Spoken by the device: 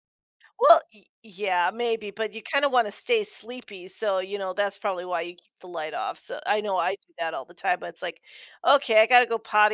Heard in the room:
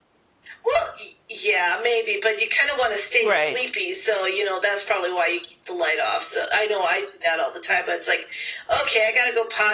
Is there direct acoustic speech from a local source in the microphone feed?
Yes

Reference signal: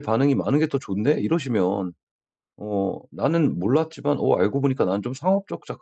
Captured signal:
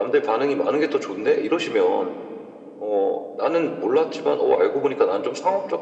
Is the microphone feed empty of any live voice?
Yes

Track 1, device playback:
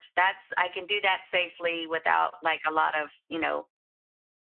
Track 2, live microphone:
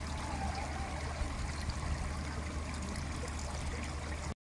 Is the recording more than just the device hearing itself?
No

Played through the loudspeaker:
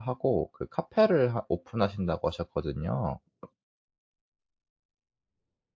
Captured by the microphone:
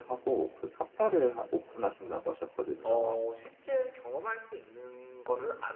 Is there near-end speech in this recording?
Yes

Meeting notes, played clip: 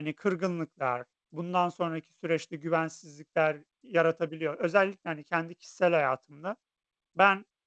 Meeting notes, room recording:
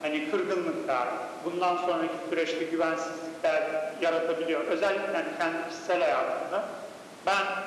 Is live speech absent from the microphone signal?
Yes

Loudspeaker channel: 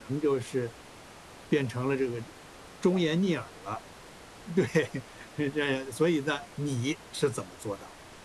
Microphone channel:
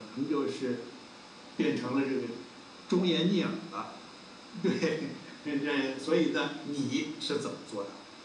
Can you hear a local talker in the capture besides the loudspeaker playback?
No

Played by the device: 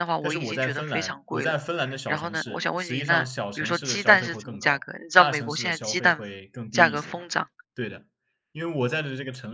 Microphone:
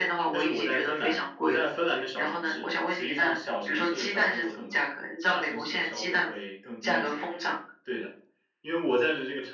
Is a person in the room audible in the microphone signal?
No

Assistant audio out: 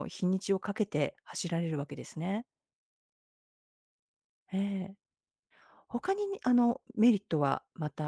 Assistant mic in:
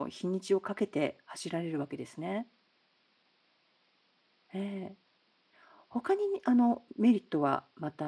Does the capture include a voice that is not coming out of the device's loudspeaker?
No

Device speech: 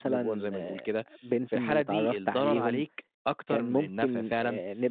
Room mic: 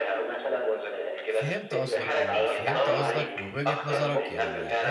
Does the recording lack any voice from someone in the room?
No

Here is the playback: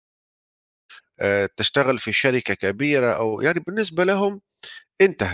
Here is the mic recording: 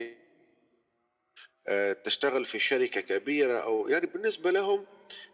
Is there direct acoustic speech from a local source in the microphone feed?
No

